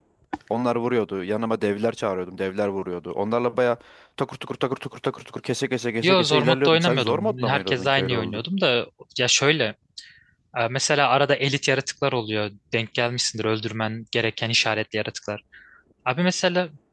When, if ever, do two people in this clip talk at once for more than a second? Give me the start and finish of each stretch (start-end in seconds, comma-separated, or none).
6.0-8.4